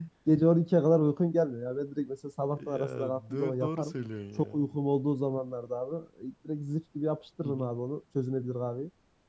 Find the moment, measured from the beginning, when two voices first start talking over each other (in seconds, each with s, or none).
2.5 s